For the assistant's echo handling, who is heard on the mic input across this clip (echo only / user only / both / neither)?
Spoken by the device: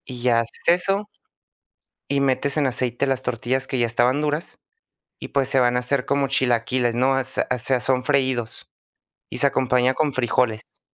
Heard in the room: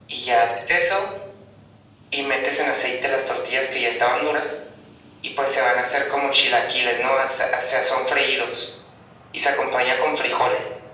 echo only